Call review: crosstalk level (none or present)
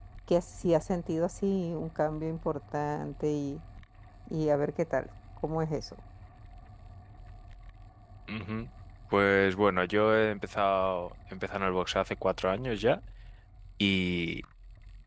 none